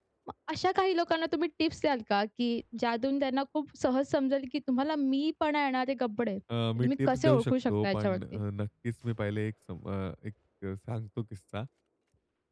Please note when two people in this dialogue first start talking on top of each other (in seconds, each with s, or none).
6.8 s